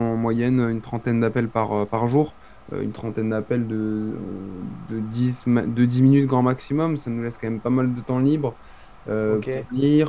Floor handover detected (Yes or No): No